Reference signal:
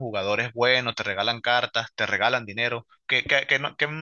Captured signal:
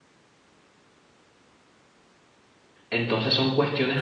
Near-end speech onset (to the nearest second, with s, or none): 3 s